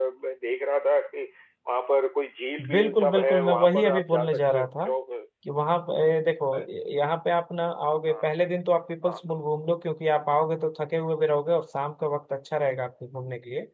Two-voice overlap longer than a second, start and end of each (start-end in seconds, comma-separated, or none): 2.7-4.7